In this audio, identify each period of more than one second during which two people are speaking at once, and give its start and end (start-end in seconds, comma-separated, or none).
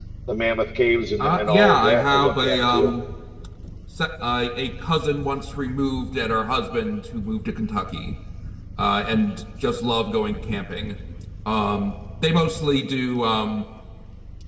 1.2-3.0